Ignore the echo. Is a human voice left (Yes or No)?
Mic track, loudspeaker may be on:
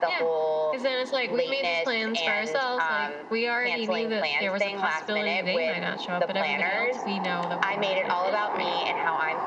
No